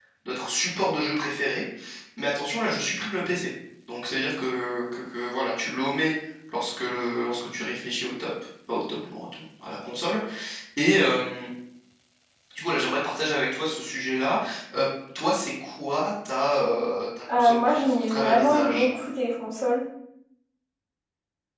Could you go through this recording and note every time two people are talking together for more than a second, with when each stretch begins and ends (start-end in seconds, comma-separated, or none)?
17.4-18.9